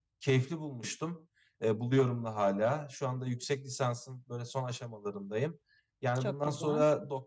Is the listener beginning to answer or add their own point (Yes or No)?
No